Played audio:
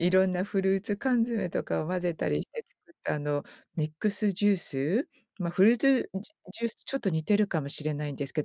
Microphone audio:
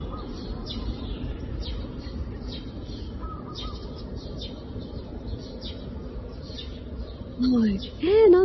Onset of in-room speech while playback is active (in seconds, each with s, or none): 7.4 s